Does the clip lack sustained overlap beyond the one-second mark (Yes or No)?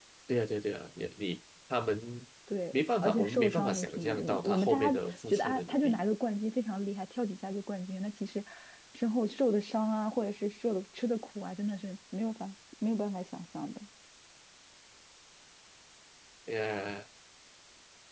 No